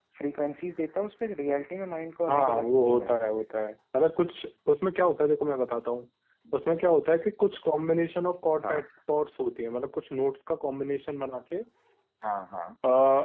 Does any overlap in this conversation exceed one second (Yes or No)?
Yes